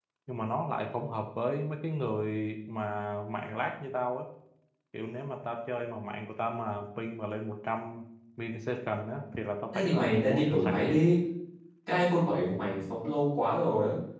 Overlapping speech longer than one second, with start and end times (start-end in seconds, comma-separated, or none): 9.7-11.0